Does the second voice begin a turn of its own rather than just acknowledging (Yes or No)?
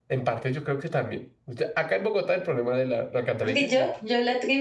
Yes